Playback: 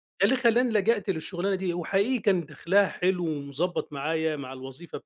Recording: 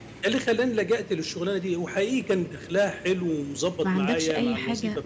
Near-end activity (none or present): present